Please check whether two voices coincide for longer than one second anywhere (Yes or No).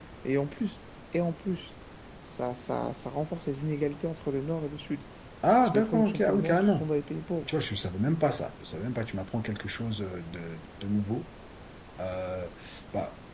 Yes